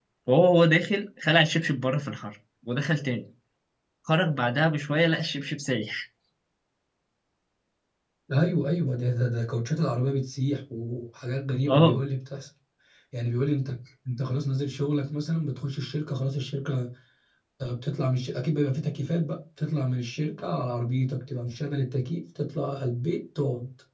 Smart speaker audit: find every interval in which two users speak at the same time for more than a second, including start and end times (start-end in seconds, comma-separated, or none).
none